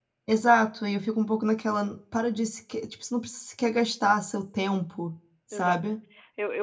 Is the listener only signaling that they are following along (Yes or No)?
No